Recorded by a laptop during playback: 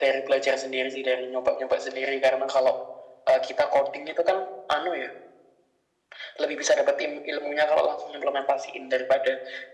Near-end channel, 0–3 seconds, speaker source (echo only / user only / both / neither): echo only